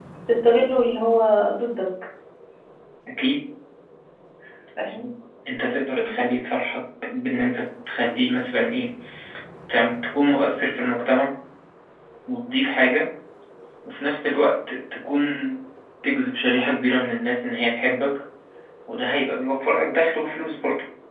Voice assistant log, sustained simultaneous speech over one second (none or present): none